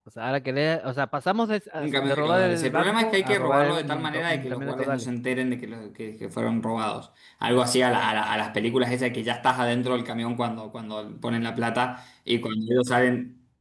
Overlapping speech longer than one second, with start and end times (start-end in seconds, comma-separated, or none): 1.8-5.1